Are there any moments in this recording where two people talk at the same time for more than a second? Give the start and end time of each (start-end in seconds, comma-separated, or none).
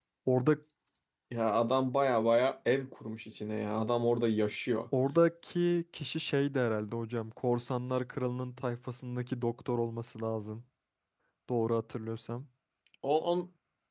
none